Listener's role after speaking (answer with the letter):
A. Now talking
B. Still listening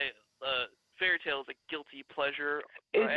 A